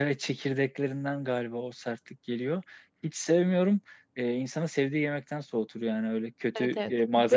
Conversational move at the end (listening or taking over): taking over